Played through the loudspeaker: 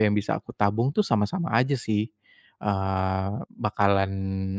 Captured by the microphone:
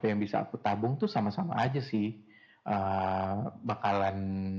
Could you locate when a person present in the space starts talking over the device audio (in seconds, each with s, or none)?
none